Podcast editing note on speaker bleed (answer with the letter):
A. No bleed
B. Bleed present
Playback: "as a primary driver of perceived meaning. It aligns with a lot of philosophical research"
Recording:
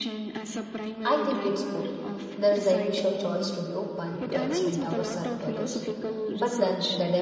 B